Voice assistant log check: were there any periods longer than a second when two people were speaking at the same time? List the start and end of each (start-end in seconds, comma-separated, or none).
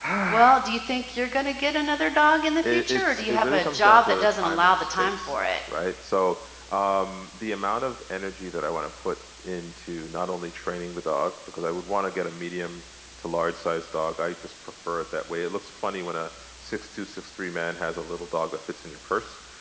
2.6-5.3